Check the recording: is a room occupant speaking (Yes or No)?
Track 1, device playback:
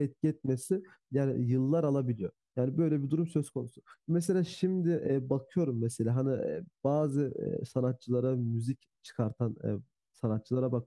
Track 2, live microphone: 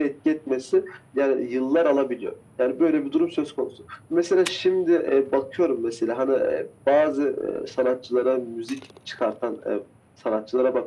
No